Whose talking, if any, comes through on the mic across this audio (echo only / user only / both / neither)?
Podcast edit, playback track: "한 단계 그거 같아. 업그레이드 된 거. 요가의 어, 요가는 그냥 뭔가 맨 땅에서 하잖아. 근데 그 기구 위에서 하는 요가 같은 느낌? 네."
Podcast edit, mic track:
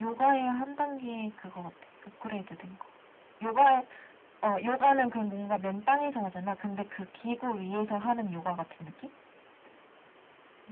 echo only